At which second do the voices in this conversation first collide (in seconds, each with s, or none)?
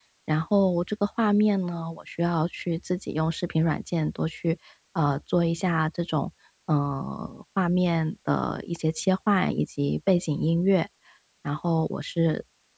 none